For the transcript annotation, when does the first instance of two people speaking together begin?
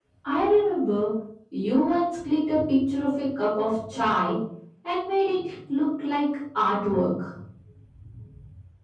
none

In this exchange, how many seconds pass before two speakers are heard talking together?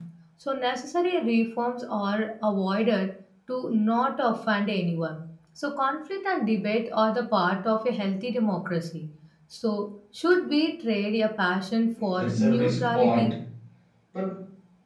12.0 s

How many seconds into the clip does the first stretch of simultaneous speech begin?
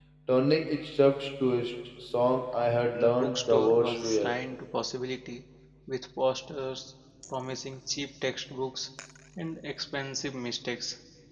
2.9 s

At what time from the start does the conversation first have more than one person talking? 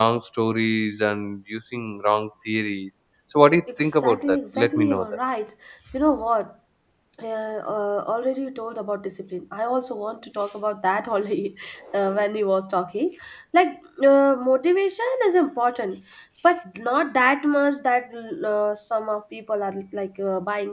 3.7 s

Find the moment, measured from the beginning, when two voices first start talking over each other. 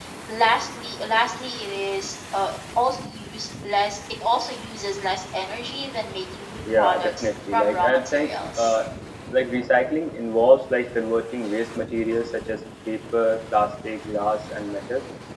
6.7 s

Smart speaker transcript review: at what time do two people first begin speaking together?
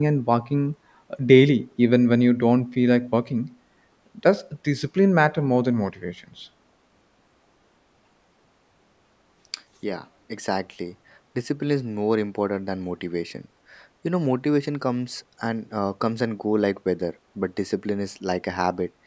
none

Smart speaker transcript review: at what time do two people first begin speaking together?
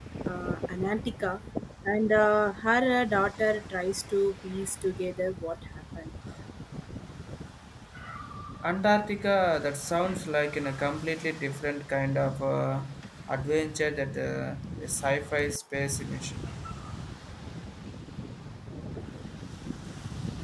none

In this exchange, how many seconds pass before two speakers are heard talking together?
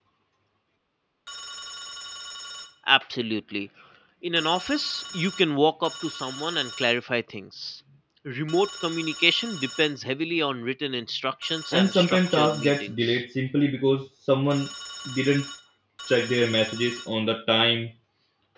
11.7 s

